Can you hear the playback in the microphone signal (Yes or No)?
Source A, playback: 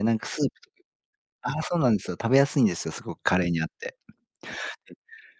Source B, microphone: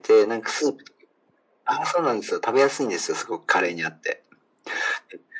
Yes